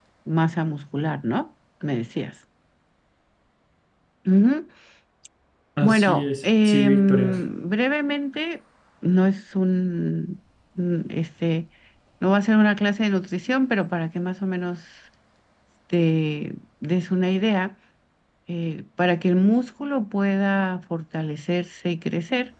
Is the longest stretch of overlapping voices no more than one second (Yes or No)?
No